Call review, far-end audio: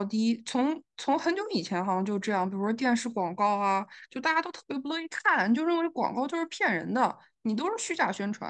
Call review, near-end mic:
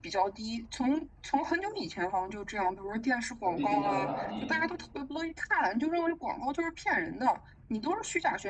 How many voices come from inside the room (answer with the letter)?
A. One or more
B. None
A